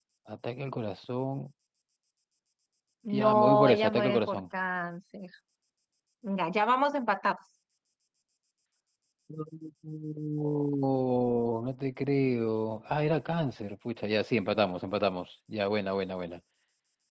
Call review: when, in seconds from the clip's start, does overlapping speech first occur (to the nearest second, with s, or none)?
3 s